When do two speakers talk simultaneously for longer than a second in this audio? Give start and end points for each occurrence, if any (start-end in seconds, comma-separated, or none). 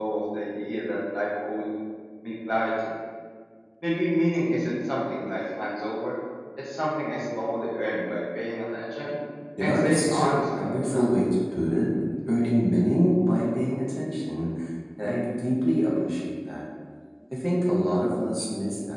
9.6-11.1